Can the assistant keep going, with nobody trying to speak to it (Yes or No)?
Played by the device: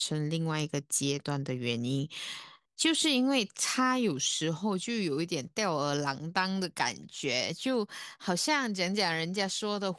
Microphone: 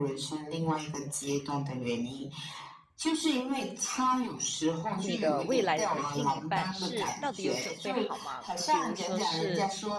No